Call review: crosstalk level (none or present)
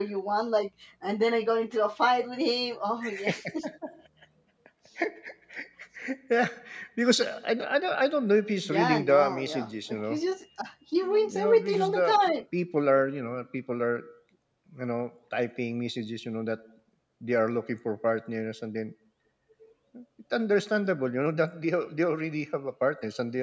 present